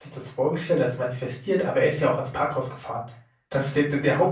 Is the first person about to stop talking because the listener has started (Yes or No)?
No